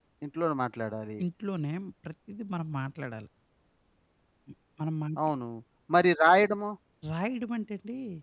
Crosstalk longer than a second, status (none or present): none